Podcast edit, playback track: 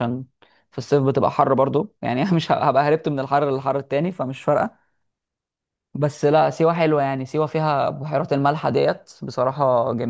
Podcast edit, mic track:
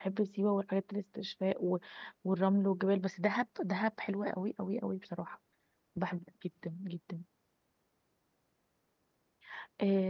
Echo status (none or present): none